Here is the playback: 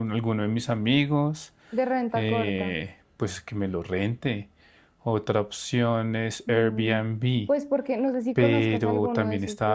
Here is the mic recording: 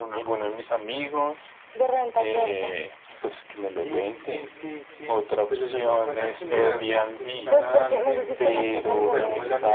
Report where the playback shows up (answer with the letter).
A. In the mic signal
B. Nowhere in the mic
A